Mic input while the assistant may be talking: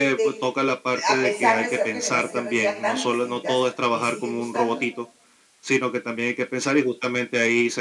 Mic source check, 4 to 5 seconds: both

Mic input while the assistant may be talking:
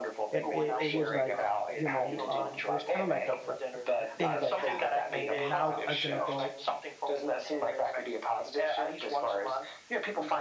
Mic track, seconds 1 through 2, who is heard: both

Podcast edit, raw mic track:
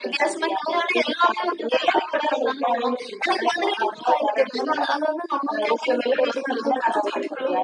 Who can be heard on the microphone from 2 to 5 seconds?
echo only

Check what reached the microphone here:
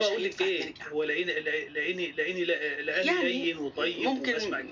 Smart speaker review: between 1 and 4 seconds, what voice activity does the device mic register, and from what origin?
echo only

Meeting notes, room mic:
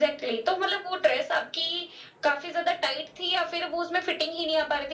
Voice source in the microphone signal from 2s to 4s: echo only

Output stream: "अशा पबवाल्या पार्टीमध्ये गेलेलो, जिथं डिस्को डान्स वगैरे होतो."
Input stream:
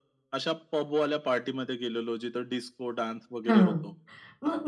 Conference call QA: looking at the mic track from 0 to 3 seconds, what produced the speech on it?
echo only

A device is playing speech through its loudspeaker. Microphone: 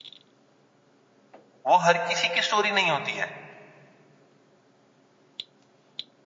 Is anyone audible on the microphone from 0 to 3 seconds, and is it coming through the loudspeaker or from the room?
user only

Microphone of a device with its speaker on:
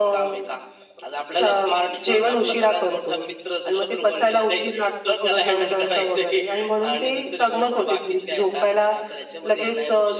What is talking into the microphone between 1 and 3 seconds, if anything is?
echo only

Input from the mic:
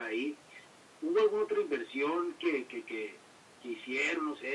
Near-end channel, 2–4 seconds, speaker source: echo only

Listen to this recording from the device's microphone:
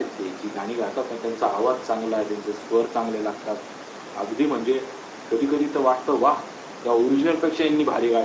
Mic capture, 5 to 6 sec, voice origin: echo only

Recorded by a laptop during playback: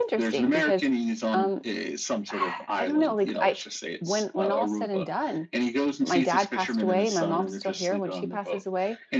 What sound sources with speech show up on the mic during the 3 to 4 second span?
both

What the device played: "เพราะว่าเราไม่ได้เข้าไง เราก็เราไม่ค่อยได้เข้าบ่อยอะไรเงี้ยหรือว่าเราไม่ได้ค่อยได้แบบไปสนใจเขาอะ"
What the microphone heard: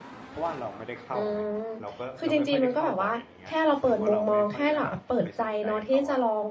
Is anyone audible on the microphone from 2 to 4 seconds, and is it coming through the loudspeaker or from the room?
both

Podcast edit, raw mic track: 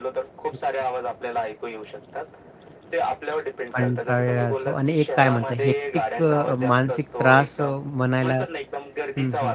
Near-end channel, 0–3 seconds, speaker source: echo only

